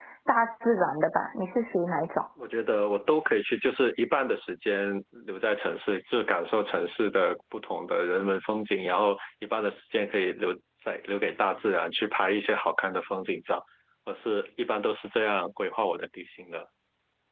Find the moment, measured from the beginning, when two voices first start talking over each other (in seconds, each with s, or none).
none